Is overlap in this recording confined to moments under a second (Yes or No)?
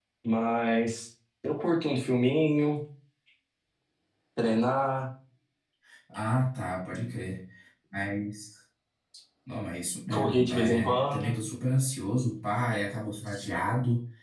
No